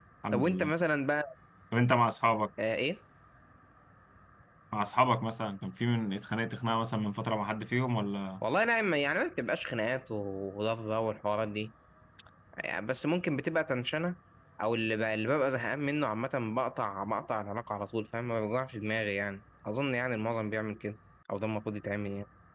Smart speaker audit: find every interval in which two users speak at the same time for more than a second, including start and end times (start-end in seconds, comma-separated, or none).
none